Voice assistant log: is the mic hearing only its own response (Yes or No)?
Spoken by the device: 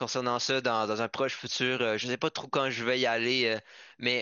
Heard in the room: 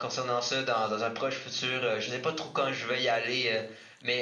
Yes